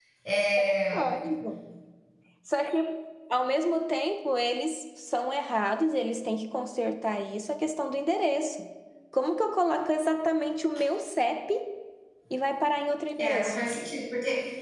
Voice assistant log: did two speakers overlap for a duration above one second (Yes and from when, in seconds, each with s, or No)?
No